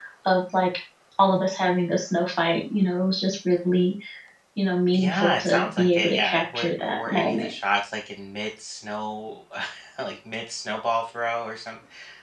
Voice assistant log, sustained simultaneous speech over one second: present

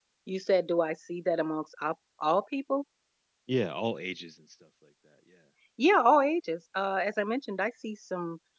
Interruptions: none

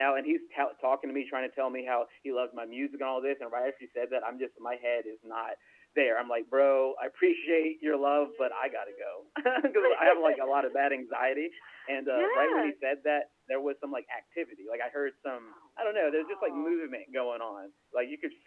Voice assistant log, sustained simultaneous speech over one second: present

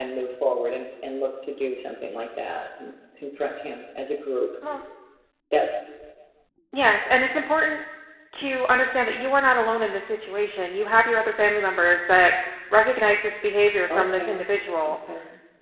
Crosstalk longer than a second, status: none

